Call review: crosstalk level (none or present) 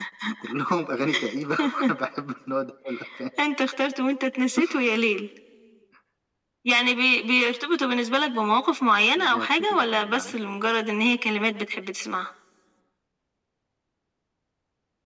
present